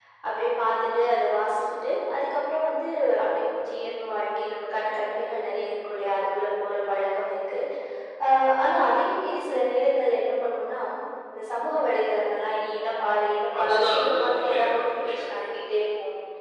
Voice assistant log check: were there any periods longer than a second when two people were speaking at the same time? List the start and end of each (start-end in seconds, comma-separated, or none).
13.6-15.4